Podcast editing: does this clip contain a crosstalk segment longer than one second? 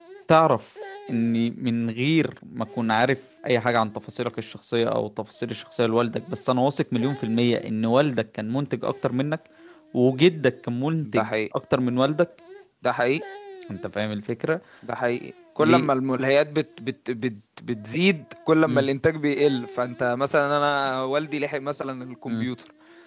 No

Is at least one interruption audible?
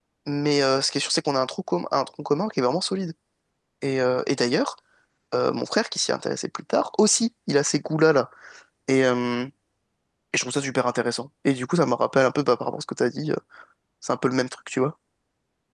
No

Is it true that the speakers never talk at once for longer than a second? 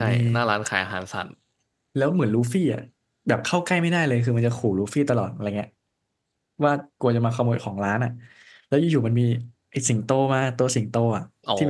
Yes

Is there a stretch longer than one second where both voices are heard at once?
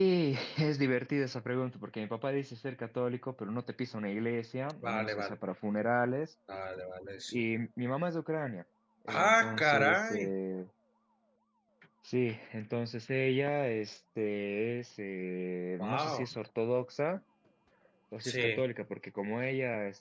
Yes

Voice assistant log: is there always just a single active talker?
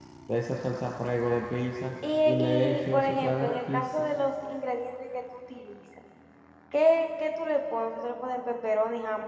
No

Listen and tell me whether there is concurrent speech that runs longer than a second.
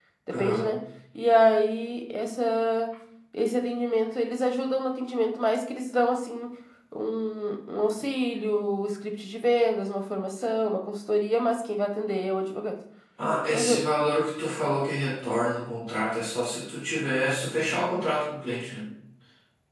No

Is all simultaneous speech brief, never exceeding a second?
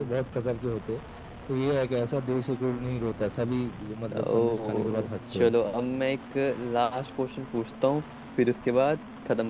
No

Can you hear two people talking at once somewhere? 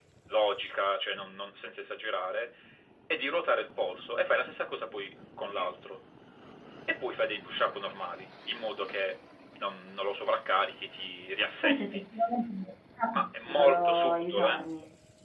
Yes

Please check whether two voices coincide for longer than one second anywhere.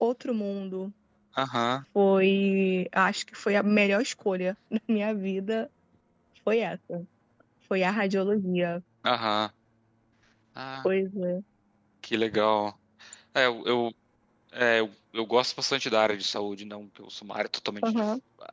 No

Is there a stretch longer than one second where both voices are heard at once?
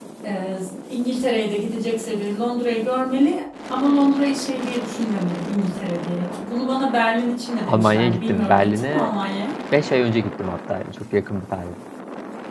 Yes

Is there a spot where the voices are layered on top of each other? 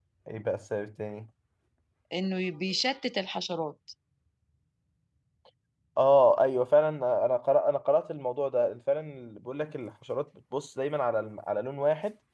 No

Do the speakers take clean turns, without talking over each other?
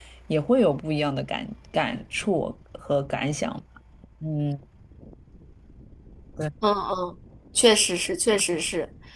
Yes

